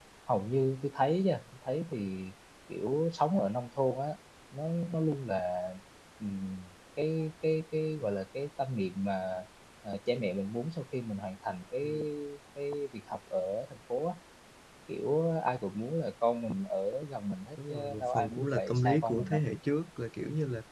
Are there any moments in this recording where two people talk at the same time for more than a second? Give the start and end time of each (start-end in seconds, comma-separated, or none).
17.7-19.4